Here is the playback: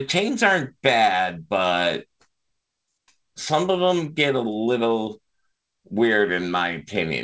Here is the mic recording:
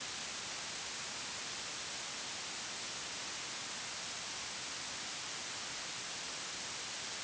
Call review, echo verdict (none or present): none